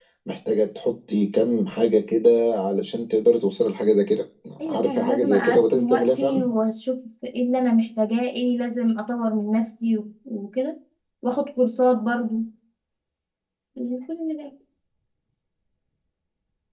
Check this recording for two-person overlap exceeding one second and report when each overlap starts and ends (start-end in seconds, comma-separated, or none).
4.7-6.5